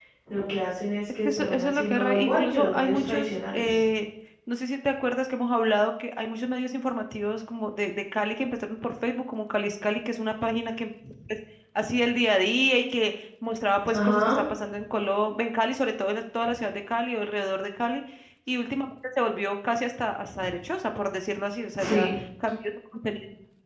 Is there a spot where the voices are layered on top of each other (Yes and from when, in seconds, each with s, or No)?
Yes, from 1.2 s